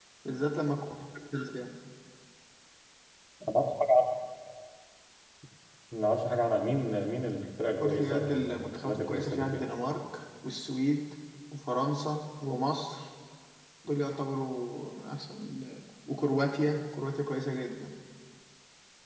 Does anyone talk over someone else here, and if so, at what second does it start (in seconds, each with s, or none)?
7.8 s